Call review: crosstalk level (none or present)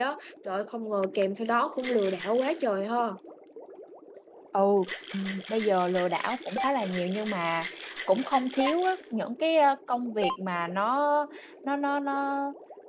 none